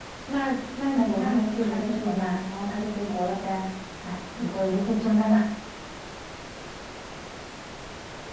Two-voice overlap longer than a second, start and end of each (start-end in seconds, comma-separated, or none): 0.9-2.4